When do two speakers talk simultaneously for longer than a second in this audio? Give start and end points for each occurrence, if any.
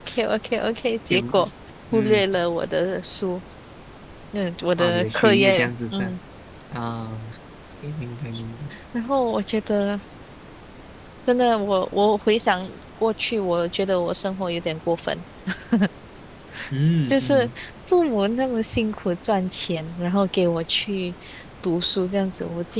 4.8-6.2

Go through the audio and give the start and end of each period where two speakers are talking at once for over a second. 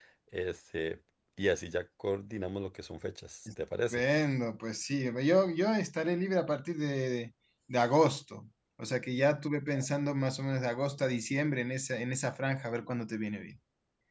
none

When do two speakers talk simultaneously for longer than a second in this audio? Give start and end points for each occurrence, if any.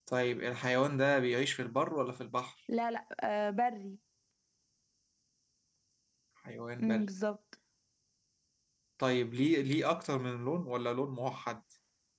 none

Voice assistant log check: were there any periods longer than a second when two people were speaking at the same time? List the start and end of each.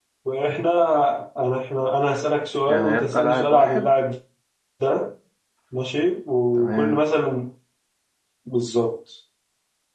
2.7-3.9

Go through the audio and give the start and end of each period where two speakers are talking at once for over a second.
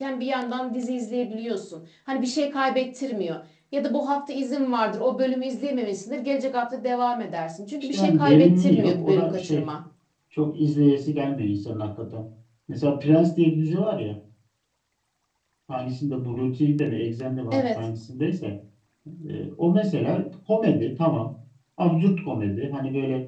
7.9-9.6

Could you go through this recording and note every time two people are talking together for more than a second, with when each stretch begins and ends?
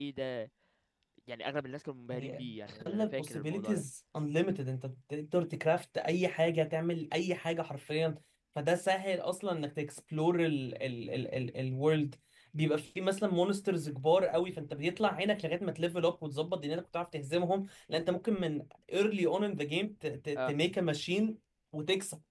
2.1-3.8

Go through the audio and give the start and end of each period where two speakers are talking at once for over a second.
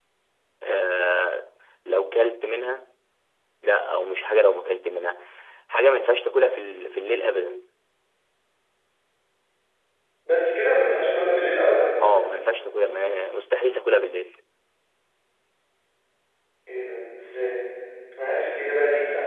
none

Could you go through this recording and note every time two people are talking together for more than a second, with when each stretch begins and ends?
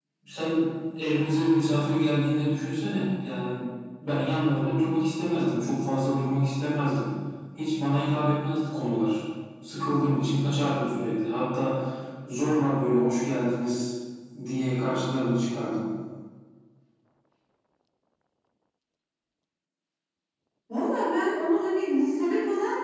none

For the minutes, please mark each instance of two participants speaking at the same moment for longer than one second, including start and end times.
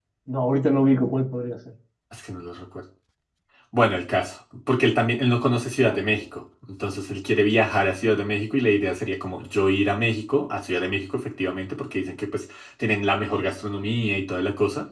none

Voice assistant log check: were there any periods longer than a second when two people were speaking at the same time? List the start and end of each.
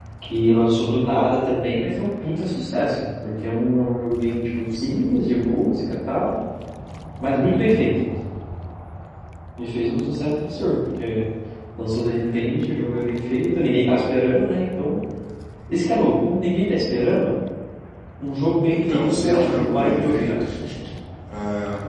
18.7-20.3

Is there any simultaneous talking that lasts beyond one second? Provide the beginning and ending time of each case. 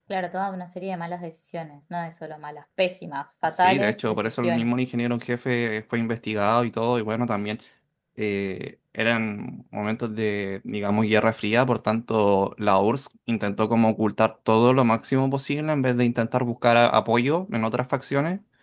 3.4-4.7

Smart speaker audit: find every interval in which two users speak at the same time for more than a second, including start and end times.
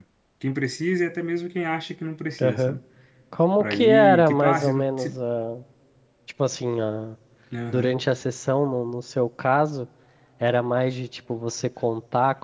3.6-5.2

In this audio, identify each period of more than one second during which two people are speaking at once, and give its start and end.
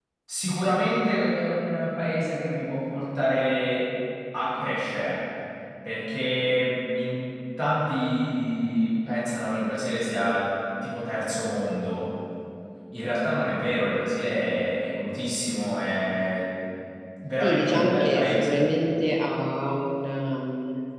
17.4-18.6

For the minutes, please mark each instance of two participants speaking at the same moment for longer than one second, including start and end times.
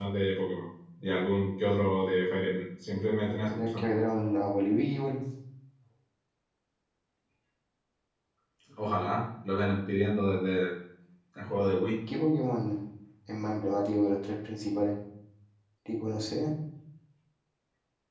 none

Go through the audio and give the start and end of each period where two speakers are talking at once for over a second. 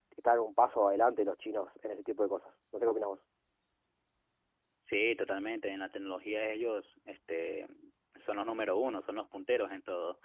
none

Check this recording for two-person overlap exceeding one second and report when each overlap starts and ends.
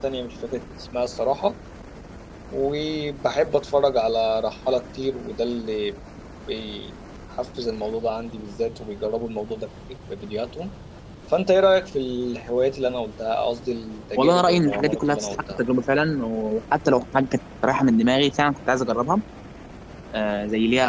14.2-15.6

